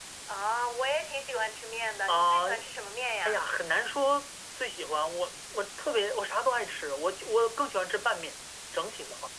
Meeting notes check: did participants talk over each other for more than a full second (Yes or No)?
No